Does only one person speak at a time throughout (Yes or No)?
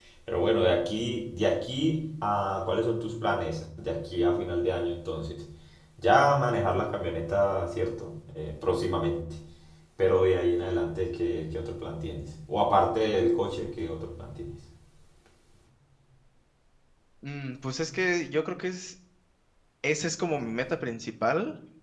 Yes